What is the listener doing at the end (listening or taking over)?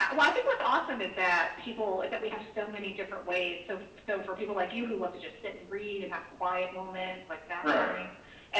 listening